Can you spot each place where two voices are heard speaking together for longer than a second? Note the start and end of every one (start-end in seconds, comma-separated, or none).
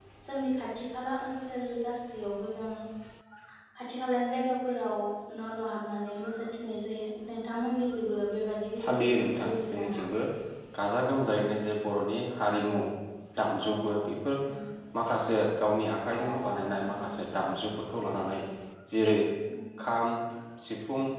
8.8-10.0